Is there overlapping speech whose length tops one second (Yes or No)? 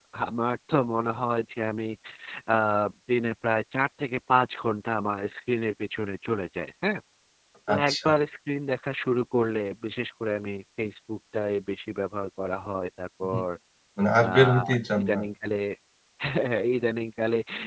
No